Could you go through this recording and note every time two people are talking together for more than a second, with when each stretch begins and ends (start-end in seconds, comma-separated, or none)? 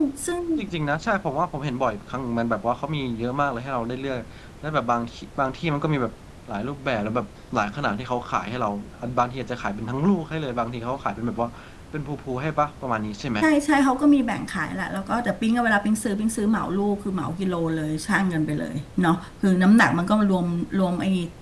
none